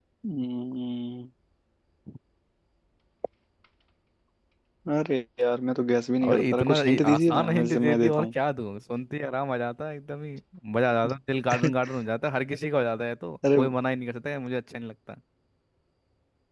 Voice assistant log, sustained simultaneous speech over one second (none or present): present